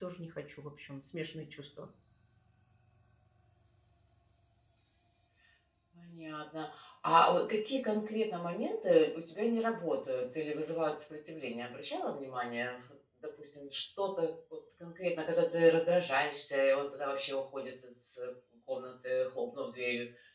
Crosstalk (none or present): none